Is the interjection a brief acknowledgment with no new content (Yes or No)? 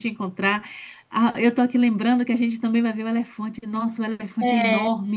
Yes